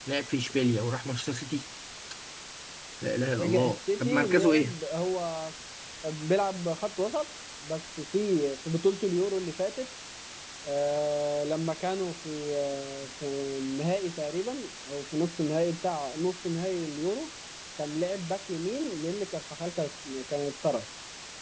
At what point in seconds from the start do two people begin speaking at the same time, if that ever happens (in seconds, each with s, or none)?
3.4 s